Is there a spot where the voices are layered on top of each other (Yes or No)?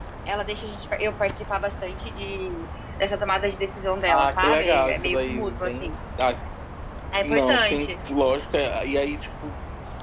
Yes